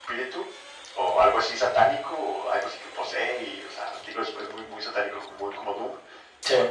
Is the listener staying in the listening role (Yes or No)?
Yes